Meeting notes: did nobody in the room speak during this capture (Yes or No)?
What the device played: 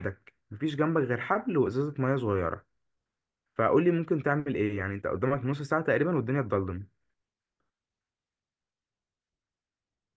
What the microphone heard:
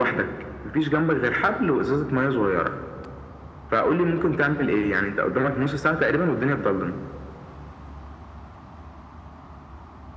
Yes